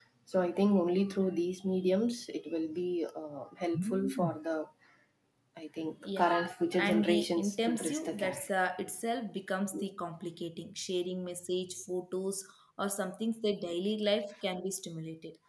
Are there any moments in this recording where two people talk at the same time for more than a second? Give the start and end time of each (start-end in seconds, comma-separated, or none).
6.8-8.4